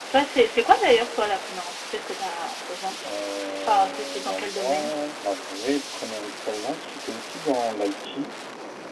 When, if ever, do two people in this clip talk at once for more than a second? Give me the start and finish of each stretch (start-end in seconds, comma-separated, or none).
3.7-4.9